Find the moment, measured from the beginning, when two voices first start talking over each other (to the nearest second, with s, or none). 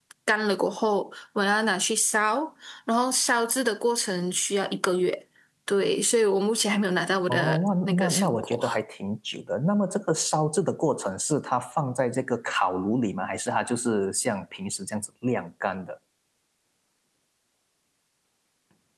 7 s